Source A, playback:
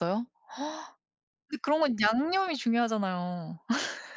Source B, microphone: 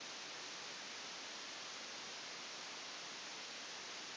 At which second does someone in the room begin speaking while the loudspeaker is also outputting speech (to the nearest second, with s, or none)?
none